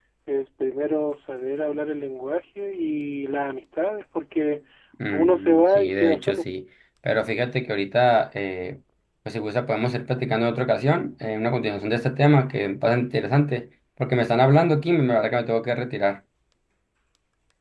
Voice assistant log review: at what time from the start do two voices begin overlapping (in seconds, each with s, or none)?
5.1 s